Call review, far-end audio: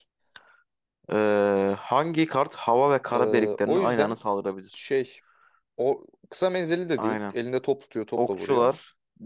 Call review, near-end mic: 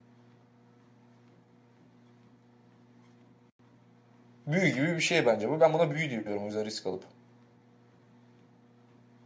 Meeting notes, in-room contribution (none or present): present